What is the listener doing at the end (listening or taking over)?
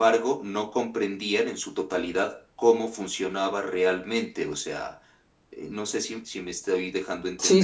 taking over